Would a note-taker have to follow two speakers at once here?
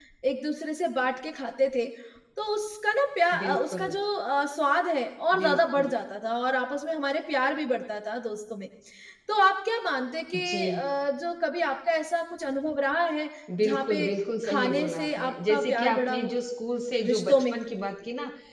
Yes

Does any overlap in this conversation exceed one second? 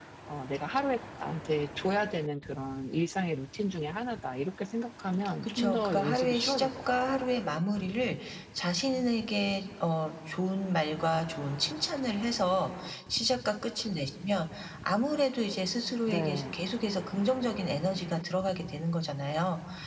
Yes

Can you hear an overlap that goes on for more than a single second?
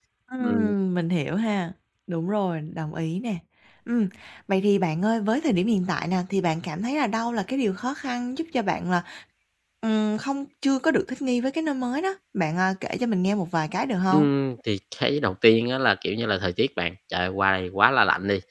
No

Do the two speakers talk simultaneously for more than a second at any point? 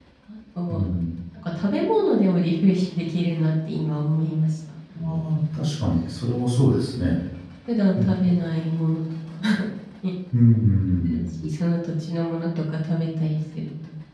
No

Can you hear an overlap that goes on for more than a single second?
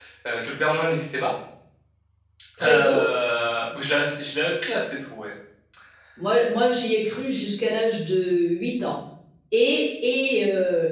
No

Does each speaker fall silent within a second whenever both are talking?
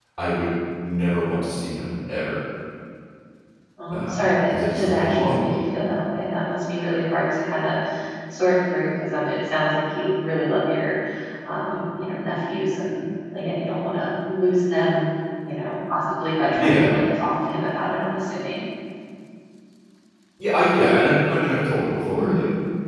No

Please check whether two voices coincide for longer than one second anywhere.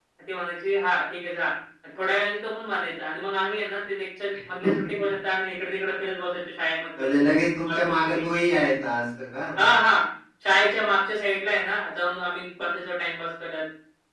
Yes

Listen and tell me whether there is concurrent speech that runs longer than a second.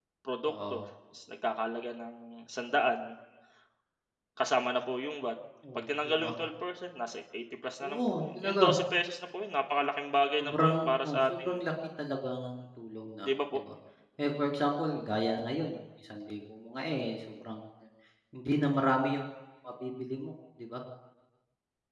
Yes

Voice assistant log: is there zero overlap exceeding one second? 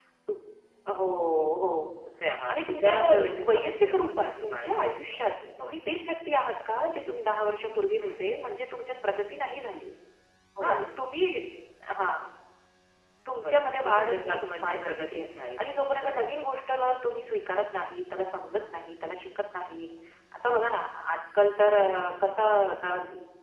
No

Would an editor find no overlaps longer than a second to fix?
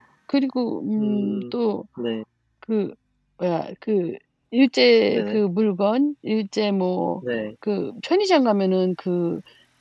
Yes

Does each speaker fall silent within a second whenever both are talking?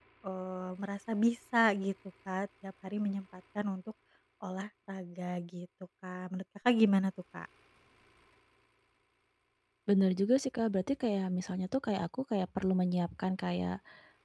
Yes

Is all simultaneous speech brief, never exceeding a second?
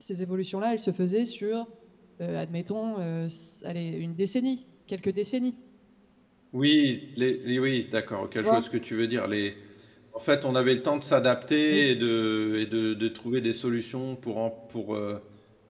Yes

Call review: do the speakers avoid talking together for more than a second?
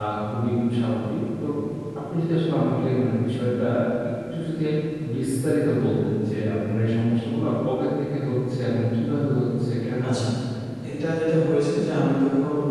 Yes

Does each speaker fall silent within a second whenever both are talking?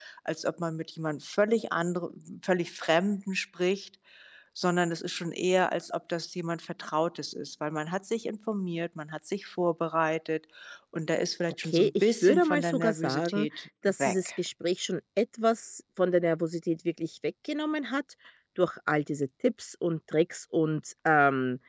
No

